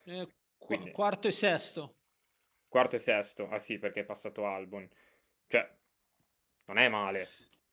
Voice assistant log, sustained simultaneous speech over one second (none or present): none